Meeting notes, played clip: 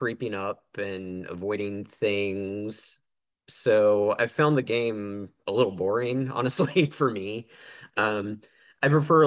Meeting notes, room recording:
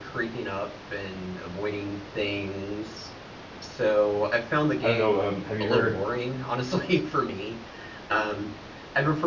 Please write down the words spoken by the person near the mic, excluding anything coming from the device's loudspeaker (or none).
I don't know. Um, have you heard?